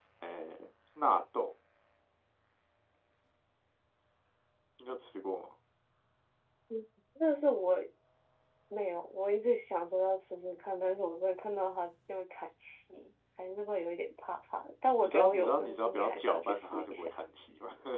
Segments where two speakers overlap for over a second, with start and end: 15.0-17.1

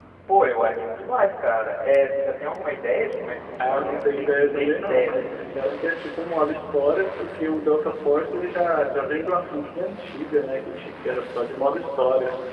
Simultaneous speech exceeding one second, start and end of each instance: 3.6-5.9

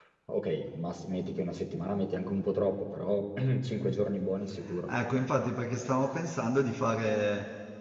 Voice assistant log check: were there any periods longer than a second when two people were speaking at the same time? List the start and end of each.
none

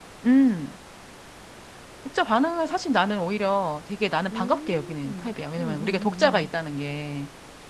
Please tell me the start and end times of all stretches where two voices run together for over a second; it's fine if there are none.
4.3-6.5

